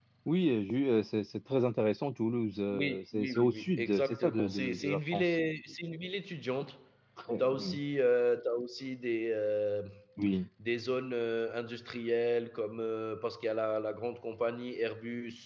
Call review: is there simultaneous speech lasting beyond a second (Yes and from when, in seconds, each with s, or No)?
Yes, from 2.7 s